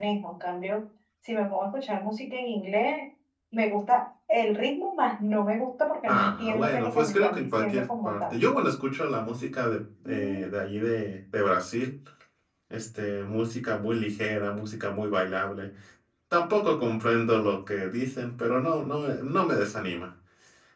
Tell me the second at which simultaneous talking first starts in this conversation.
6 s

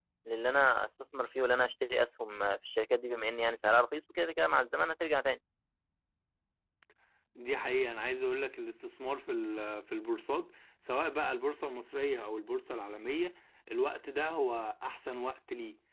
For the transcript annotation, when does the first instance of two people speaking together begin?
none

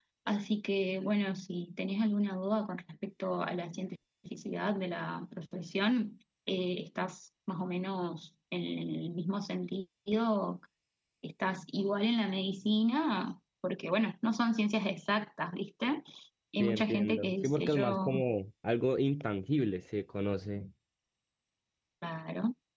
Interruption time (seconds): 17 s

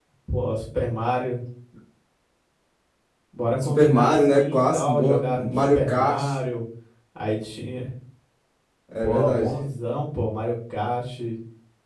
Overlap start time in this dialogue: 4 s

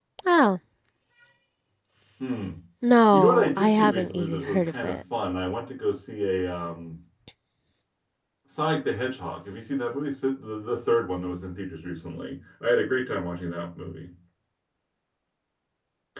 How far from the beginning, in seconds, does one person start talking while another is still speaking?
3 s

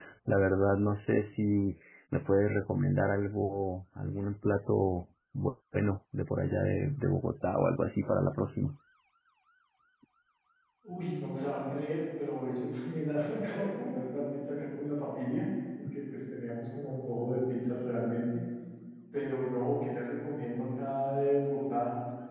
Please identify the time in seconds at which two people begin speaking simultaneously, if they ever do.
none

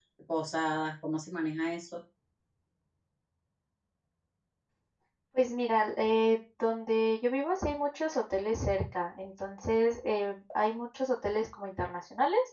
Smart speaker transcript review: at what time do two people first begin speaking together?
none

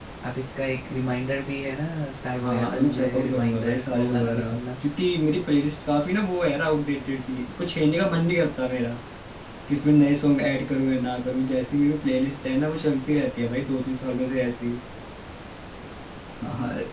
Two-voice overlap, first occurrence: 2 s

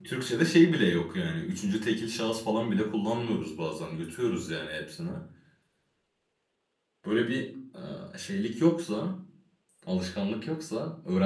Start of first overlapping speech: none

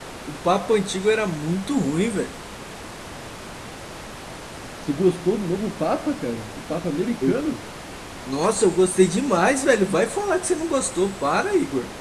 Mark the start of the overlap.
none

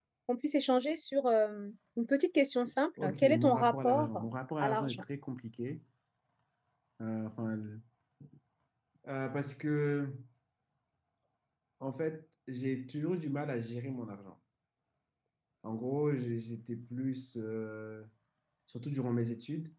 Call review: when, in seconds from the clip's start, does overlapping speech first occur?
3 s

